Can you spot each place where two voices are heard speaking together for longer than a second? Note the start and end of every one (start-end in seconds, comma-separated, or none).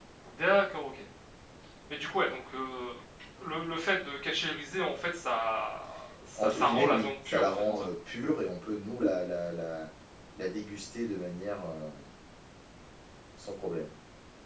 6.4-7.9